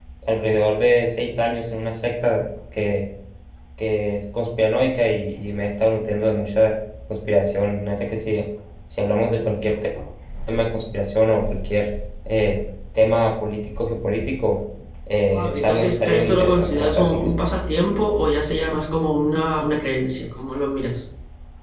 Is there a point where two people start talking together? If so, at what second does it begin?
15.3 s

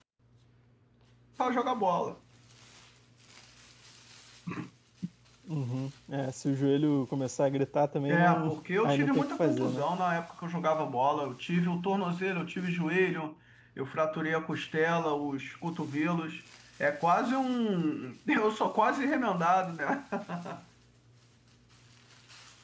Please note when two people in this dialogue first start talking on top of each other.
8.1 s

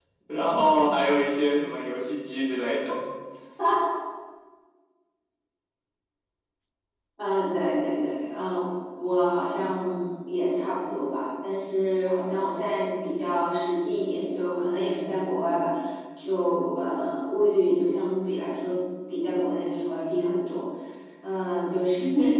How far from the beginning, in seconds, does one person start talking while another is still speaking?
none

